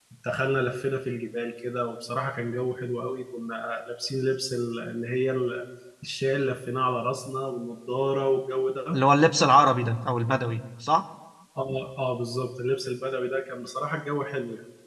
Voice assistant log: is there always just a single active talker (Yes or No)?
Yes